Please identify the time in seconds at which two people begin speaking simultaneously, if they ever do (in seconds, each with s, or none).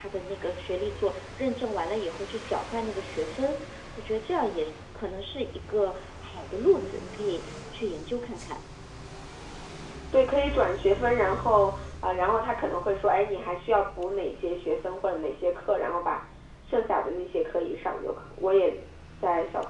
none